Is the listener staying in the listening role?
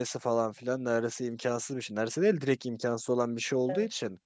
Yes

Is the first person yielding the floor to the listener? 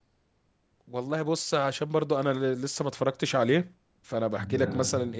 No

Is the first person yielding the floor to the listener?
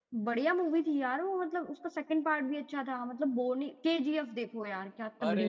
Yes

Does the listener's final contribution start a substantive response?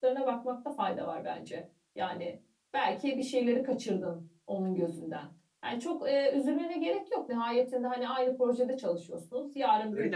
No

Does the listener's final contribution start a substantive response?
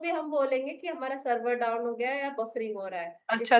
Yes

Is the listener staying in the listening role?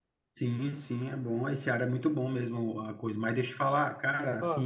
Yes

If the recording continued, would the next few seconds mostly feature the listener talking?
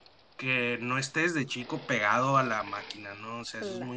No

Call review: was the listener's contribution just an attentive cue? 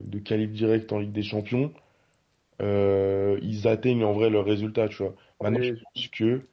Yes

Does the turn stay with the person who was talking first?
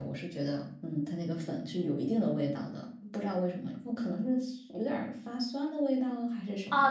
No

